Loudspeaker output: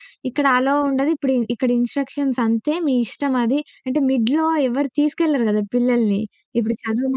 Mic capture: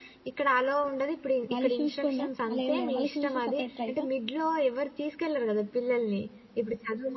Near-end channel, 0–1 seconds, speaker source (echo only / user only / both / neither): echo only